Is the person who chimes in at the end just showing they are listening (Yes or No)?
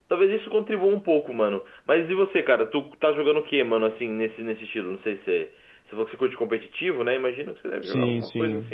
No